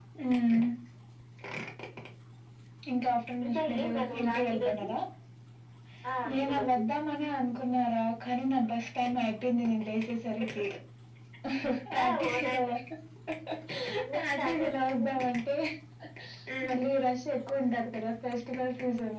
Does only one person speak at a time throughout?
No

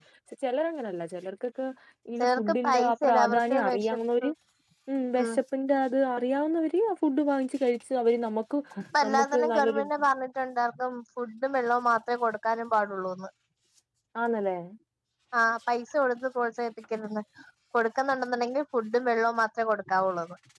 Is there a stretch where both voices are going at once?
Yes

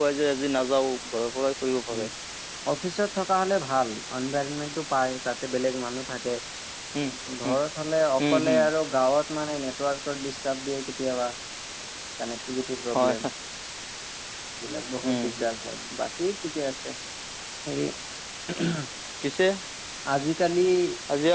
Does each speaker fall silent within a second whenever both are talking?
Yes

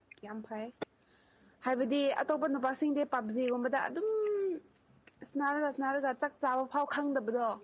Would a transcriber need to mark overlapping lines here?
No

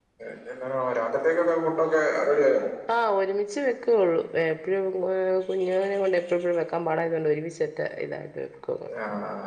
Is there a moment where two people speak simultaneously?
No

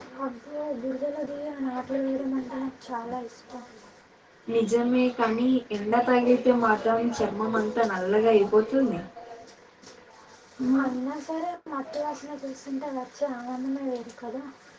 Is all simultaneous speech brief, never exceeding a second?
Yes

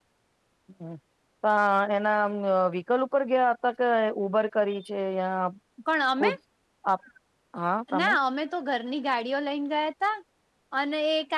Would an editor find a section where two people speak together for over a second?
No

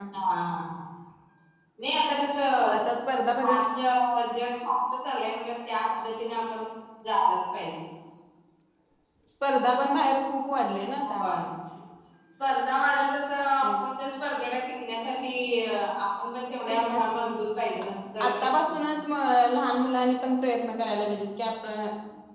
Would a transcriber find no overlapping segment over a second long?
Yes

